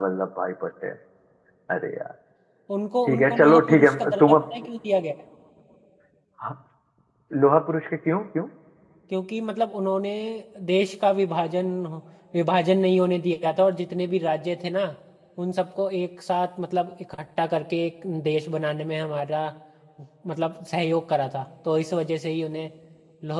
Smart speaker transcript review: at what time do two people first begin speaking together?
3.1 s

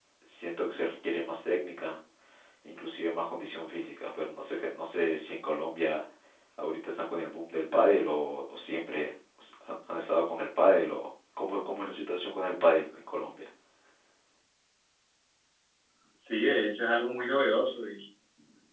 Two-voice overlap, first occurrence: none

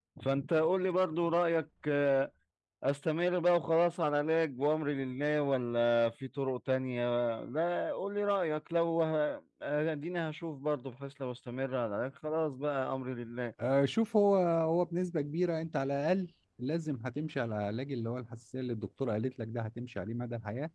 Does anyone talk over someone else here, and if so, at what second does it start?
none

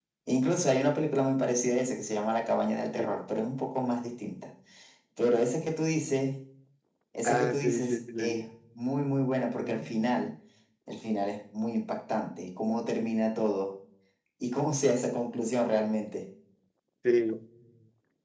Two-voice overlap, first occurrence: 7.2 s

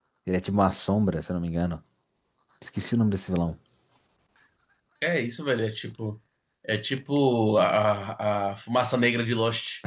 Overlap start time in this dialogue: none

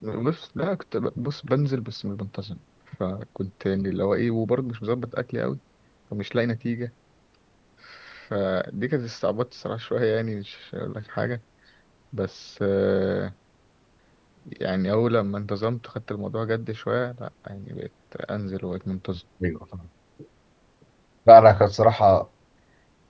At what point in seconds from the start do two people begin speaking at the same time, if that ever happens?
none

